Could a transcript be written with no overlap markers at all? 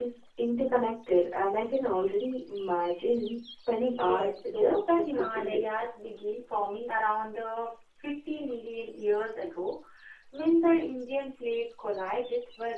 No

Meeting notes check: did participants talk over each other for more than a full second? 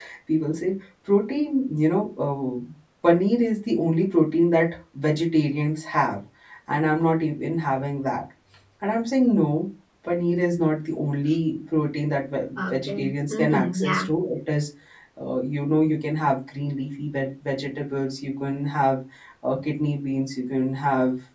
Yes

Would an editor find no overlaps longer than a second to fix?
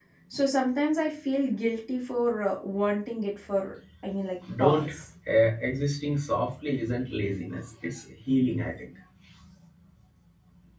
Yes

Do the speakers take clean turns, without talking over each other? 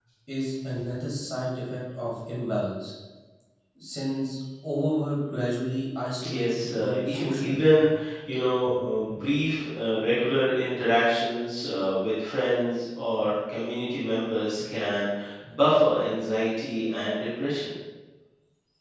No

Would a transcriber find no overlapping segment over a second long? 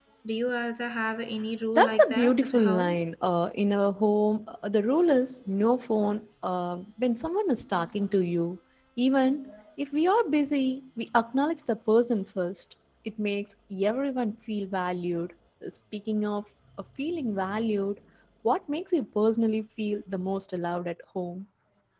No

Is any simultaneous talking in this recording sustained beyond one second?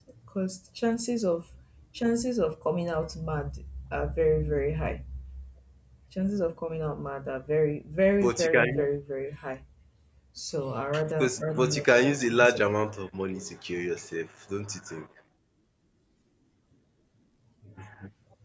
Yes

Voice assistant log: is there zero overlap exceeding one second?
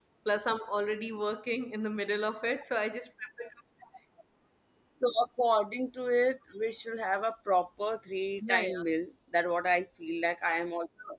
Yes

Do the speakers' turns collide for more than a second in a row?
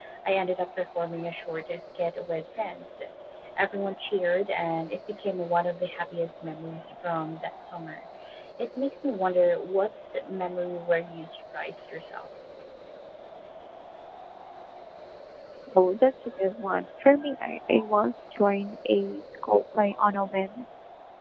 No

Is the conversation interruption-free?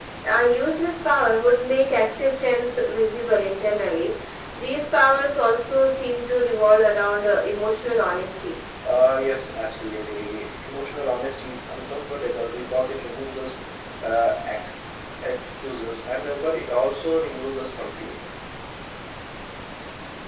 Yes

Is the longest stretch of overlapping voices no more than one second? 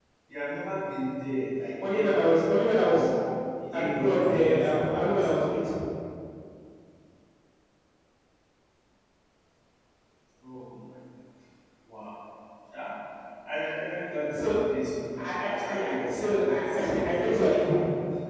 No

